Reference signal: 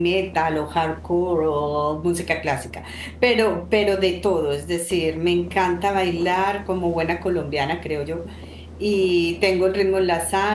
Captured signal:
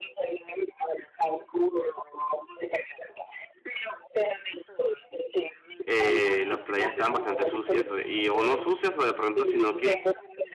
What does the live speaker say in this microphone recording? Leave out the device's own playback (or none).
eh, las playas estaban bastante sucias. o- Y, o no sucias o de pronto, sino que